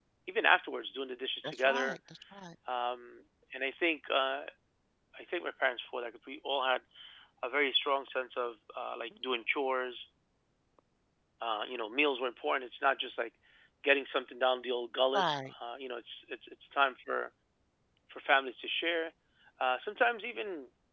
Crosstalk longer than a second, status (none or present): none